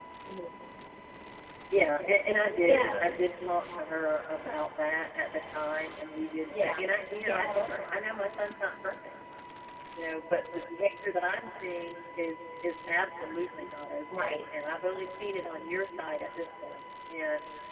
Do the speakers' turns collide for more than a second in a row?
No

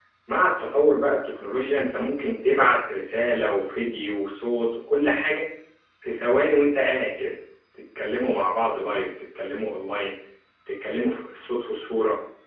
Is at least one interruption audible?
No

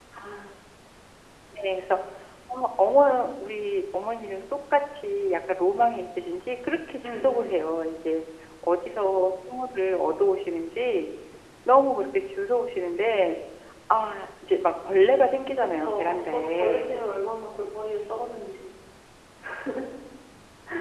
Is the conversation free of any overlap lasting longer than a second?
No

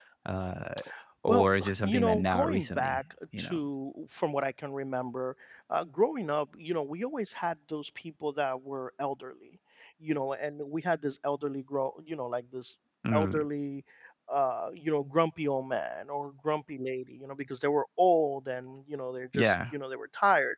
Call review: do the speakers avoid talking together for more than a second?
No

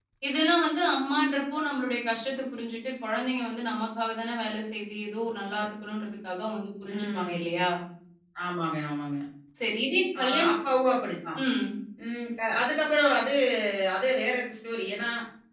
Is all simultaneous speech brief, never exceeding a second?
Yes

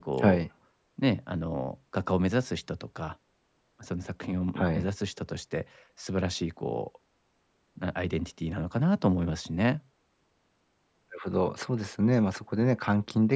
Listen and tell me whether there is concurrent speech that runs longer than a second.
No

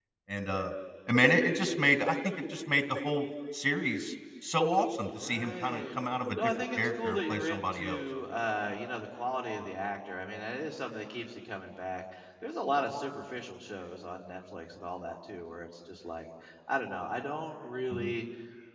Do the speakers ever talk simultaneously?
Yes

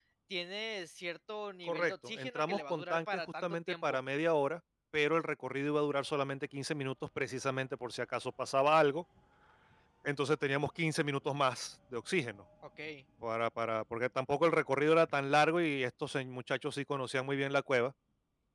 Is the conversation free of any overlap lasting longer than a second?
No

